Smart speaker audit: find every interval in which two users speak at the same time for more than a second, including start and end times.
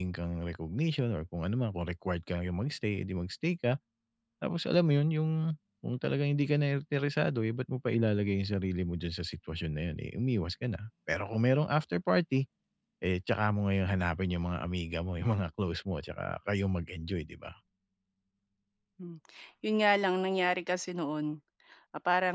none

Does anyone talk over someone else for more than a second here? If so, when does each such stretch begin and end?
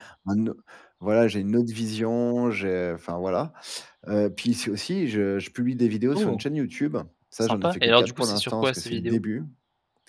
7.4-9.2

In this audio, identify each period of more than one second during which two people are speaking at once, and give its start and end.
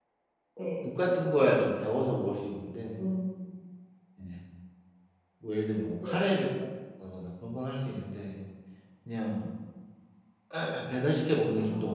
none

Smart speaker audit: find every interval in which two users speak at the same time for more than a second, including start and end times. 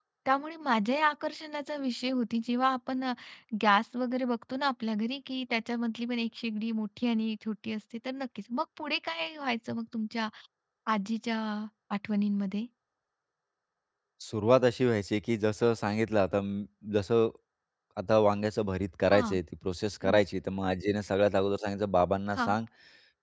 none

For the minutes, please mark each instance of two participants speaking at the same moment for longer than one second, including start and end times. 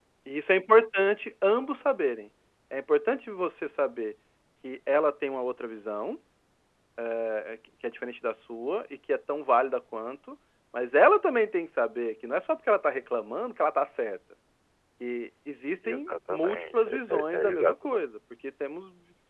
15.9-18.0

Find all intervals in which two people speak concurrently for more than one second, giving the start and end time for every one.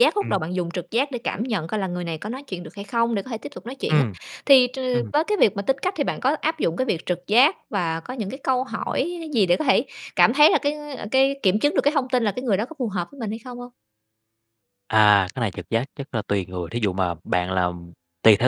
none

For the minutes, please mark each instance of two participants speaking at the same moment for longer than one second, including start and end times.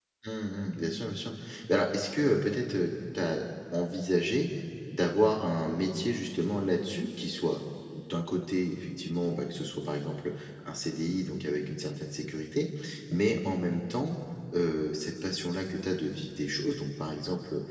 none

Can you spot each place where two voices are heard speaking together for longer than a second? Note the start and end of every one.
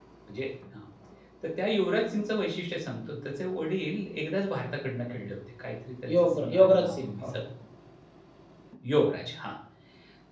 6.1-7.4

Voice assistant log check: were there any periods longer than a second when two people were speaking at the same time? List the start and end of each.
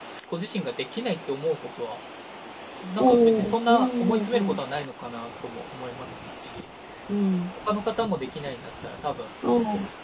3.0-4.6

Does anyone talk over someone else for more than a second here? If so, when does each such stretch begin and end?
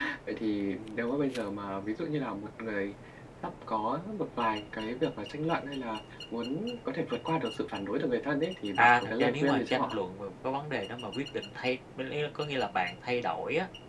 8.8-10.0

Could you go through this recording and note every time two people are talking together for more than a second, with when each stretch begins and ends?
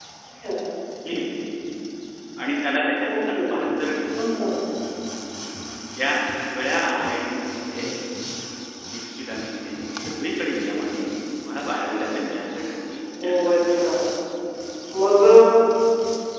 none

